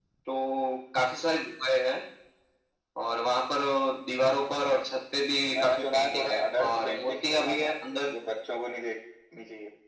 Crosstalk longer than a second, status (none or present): present